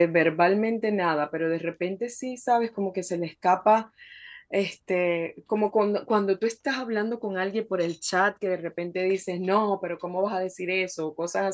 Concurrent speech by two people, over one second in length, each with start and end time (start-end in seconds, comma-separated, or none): none